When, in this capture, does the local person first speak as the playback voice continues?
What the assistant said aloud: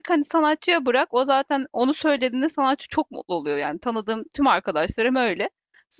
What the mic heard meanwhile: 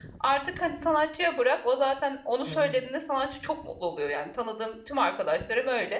2.5 s

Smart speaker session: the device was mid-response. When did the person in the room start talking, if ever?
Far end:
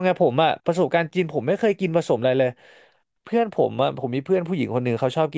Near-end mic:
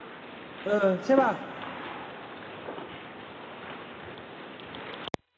0.6 s

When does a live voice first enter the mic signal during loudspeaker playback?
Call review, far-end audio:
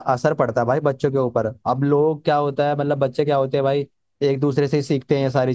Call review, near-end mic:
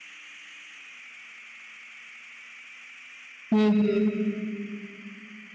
3.5 s

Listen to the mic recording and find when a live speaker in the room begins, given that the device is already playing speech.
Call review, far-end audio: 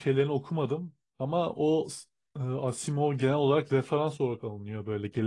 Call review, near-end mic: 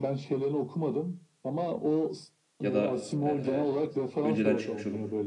2.6 s

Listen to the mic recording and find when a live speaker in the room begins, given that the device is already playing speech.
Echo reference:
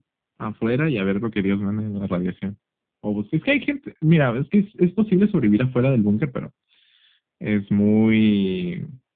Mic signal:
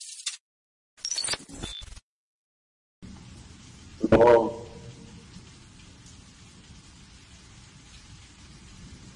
4.1 s

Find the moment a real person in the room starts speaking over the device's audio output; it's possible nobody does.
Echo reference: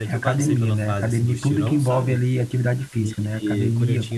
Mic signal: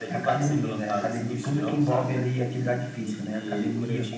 none

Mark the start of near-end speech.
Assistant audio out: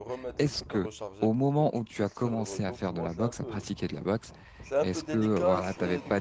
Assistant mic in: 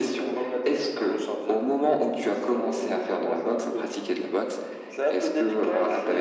none

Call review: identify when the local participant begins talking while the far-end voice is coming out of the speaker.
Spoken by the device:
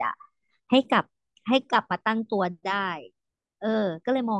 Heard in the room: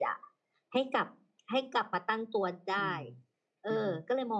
2.8 s

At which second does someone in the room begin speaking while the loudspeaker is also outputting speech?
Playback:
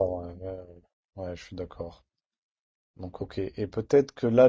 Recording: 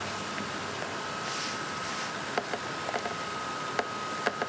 none

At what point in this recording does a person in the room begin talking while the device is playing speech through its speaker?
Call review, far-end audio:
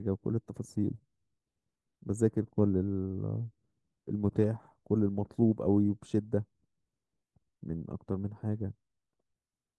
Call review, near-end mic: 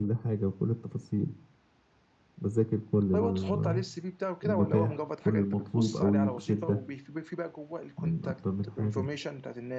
3.1 s

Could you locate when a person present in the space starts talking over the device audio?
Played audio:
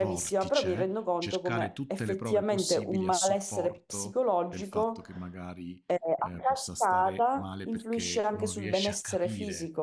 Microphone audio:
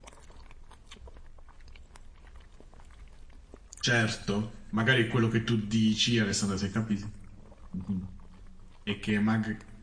3.8 s

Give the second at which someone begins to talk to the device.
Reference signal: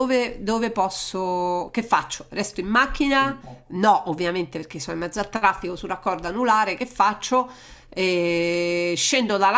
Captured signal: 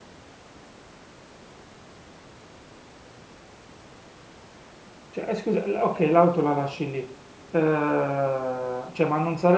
5.1 s

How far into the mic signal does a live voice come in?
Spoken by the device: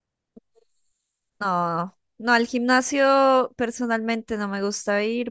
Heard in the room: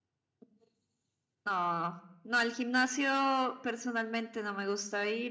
none

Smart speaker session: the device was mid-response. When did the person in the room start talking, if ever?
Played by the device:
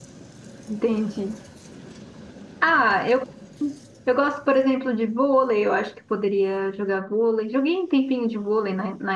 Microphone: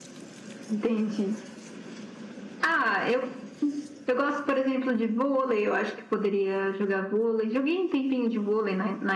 none

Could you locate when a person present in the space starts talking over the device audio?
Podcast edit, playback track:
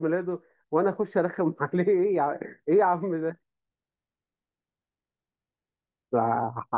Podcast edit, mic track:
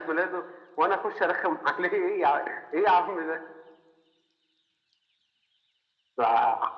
none

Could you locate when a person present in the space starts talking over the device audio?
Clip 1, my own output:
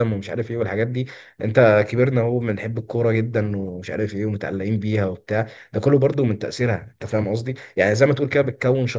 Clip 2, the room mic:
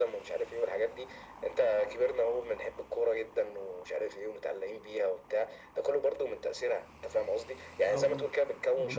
7.8 s

